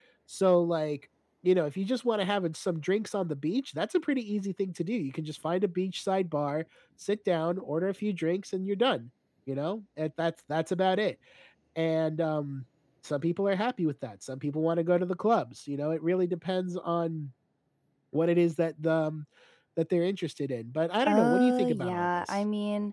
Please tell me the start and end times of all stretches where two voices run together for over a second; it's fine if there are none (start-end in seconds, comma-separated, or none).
21.0-22.4